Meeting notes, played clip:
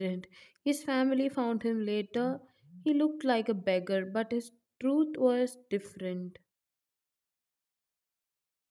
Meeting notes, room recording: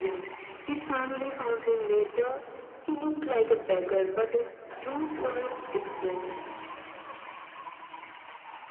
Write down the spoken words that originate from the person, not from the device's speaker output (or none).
none